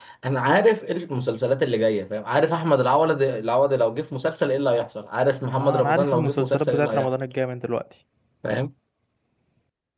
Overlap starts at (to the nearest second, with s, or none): 6 s